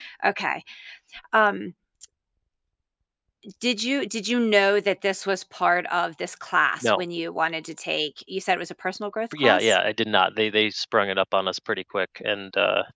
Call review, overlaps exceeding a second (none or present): none